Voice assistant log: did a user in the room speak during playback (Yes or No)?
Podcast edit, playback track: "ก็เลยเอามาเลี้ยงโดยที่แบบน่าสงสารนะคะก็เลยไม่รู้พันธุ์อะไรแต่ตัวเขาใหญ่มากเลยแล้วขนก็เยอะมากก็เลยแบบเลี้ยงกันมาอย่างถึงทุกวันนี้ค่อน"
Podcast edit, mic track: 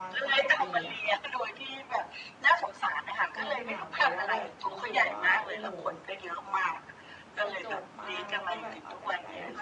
Yes